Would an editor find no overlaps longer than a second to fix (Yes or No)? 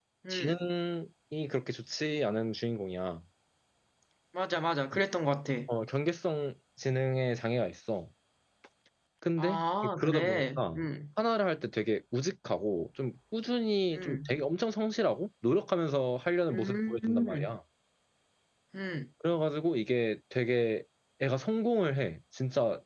No